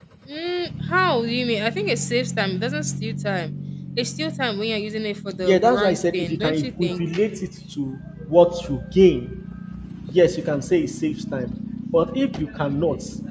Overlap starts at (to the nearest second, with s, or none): 5 s